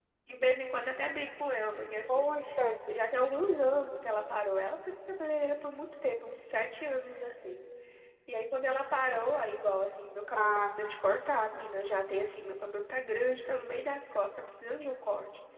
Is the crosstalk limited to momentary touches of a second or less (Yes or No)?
Yes